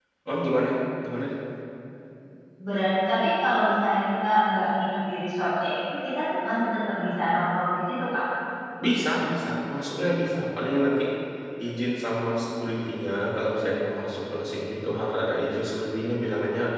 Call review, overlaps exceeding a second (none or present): none